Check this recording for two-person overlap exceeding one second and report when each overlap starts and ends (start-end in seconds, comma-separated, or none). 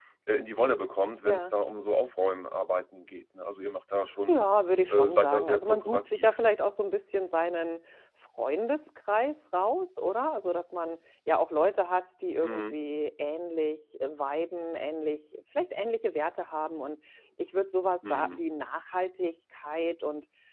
4.9-6.4